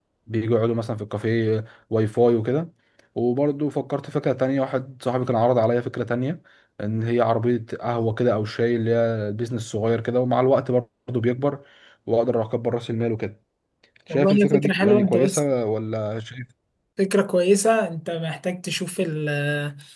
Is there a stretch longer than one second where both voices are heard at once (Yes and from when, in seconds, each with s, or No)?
Yes, from 14.1 s